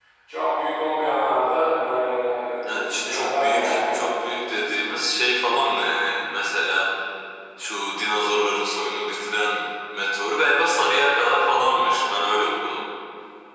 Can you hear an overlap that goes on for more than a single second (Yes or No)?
Yes